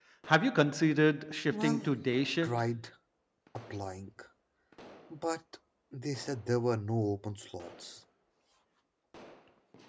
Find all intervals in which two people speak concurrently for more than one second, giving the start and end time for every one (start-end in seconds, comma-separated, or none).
none